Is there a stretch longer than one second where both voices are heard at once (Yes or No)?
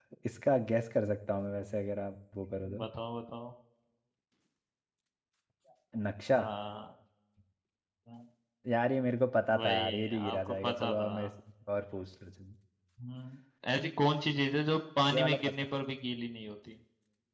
Yes